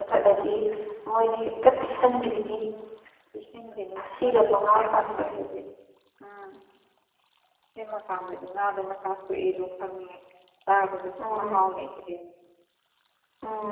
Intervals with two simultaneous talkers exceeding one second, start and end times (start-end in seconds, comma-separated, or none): 4.0-5.3